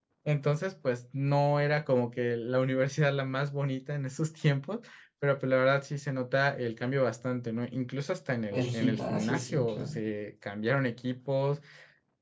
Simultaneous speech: Yes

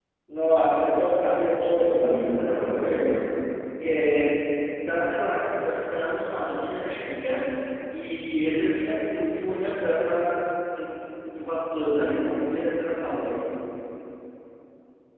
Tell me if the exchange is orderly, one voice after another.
No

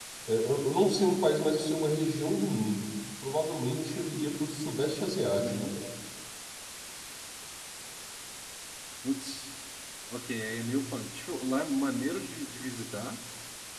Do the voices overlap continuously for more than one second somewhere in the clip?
No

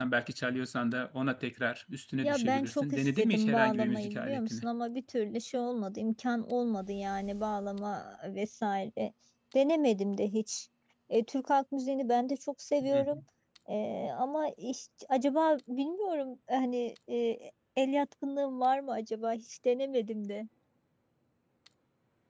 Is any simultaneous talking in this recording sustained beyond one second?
Yes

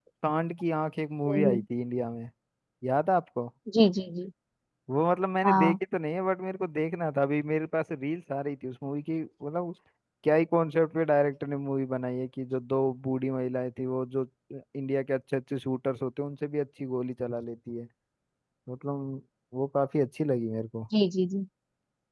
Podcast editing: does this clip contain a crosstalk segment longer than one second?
No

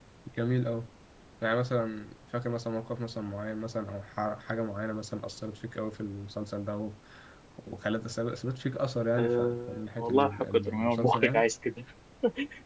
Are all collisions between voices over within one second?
No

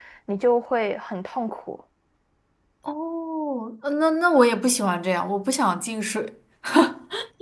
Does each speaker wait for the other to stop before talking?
Yes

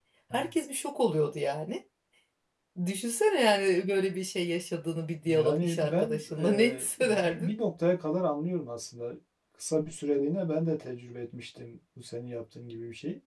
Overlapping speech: Yes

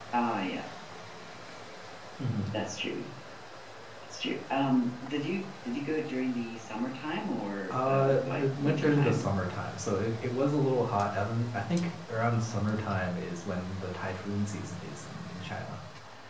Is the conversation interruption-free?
No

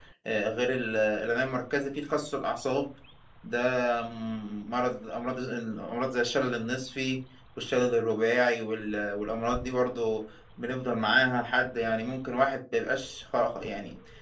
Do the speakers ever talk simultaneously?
No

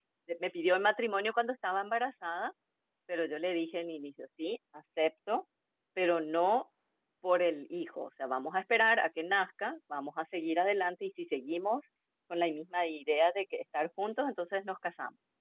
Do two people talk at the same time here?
No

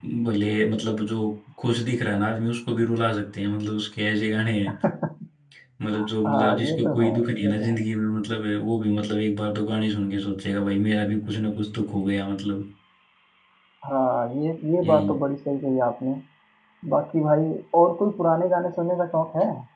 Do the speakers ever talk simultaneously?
Yes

